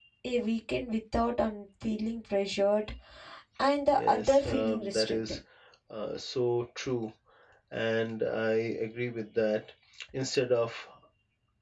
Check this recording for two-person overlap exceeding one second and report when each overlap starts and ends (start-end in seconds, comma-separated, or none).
4.0-5.3